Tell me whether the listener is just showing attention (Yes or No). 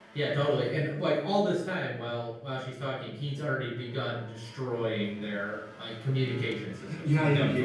No